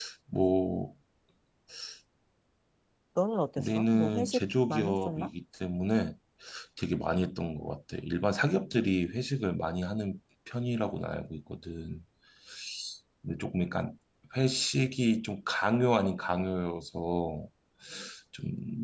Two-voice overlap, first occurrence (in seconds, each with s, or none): 3.6 s